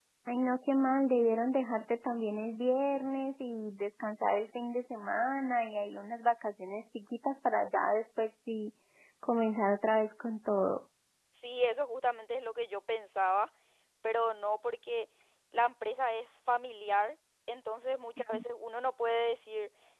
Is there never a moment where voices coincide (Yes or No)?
Yes